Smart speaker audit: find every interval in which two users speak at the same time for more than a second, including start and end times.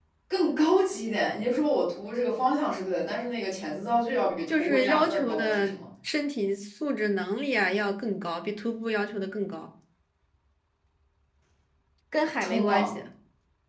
4.5-5.8

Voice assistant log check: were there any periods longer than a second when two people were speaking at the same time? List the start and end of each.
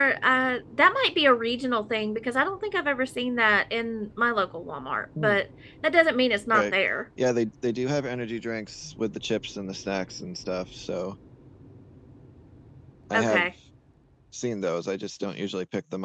none

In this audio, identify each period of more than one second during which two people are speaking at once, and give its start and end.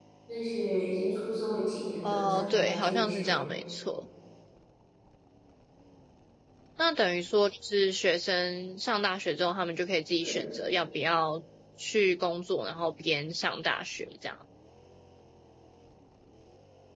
2.0-3.4

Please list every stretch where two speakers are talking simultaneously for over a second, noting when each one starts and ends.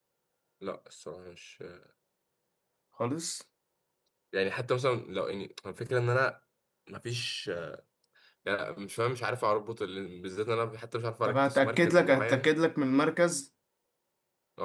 11.2-12.5

